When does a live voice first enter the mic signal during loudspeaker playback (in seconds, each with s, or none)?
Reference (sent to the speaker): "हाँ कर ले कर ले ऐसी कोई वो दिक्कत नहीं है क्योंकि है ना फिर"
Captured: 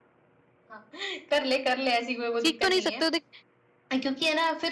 2.4 s